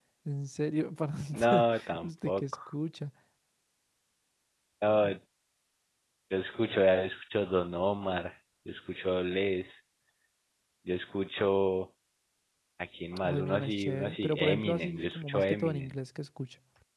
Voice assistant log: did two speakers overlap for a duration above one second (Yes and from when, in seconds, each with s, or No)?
Yes, from 1.3 s